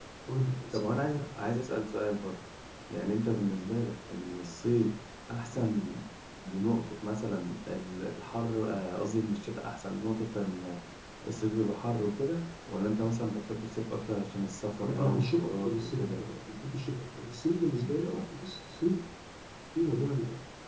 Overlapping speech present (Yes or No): Yes